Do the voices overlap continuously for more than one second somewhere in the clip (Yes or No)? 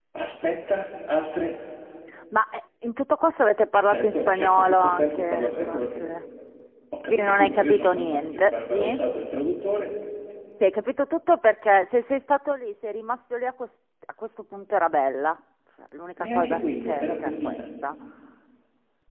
Yes